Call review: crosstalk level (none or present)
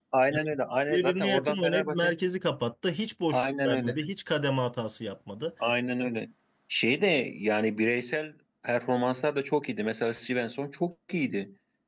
present